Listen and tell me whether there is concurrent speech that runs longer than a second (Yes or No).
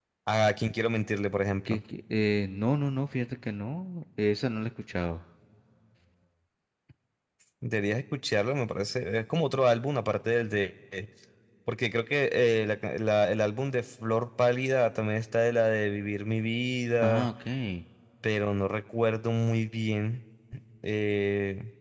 No